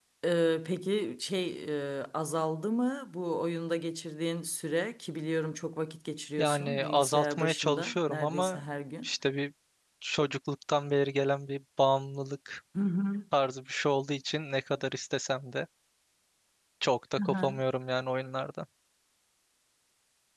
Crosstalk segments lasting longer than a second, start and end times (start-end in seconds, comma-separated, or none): 6.4-8.6